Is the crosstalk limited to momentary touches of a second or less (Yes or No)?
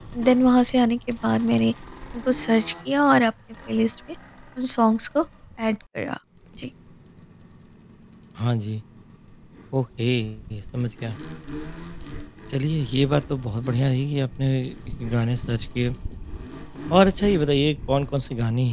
Yes